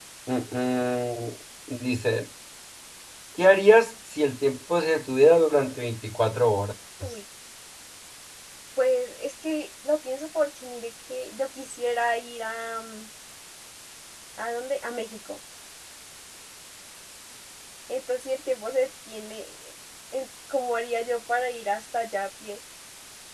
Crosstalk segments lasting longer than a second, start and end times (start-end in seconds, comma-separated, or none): none